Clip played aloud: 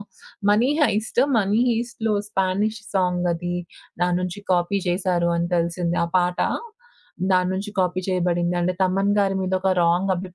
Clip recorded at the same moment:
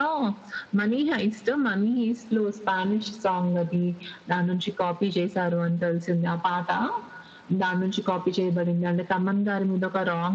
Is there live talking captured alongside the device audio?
No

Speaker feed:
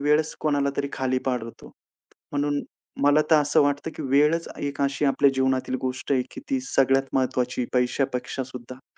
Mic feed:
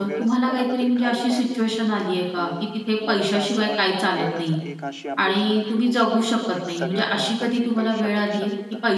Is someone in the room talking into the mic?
Yes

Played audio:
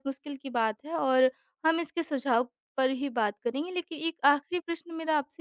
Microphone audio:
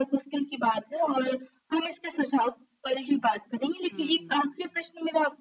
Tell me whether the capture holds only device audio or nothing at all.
No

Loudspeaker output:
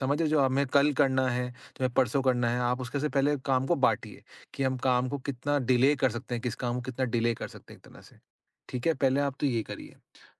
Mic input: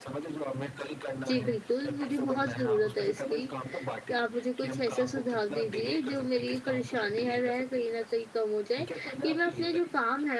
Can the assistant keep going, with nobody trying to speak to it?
No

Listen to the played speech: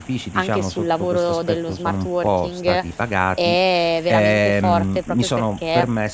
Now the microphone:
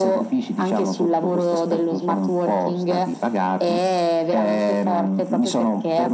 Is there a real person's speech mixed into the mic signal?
No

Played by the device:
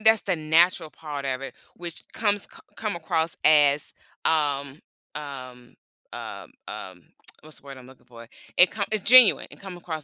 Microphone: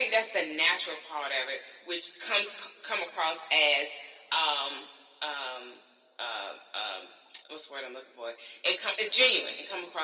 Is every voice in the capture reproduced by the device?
Yes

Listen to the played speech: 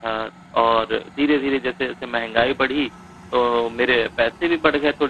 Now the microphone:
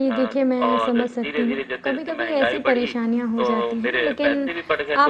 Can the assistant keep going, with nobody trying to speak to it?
No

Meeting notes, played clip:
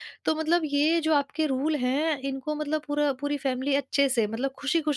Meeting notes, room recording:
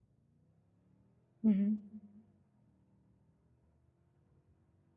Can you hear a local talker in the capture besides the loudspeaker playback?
Yes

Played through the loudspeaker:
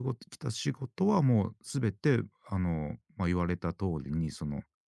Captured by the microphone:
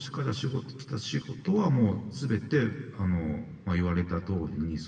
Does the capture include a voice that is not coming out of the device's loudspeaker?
No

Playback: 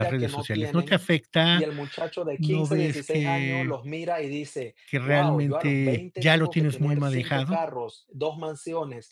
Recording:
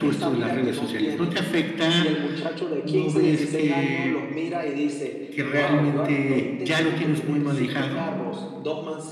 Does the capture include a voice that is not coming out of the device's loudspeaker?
No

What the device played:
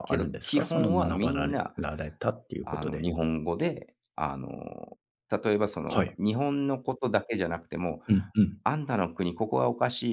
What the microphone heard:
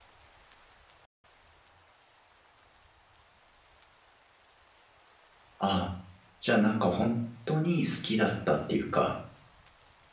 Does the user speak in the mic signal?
Yes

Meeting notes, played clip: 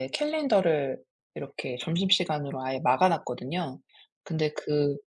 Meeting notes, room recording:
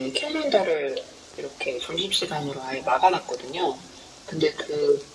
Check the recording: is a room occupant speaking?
No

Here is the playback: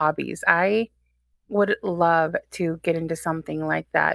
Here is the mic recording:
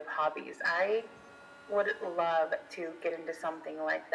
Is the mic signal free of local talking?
Yes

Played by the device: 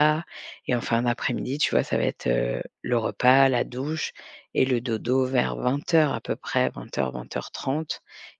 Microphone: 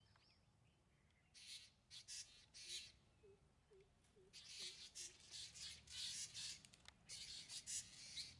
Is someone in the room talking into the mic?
No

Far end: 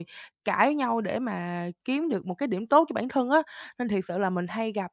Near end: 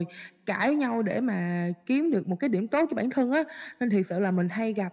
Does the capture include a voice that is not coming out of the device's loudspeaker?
No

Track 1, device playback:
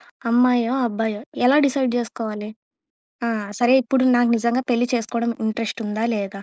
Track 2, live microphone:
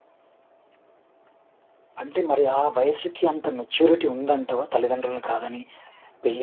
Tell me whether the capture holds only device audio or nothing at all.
No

